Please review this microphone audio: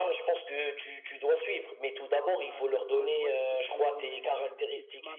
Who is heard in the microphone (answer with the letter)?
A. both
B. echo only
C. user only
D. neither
A